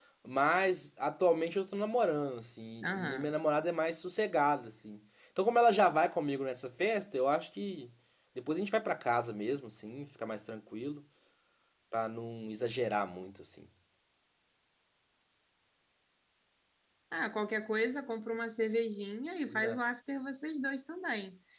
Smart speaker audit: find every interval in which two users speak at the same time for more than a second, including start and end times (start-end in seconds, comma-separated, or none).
none